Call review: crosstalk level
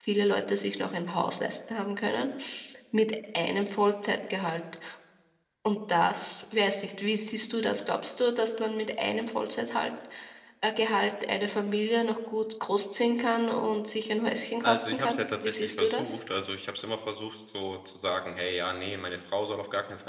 present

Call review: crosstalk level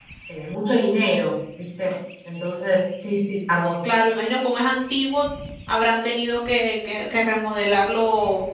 none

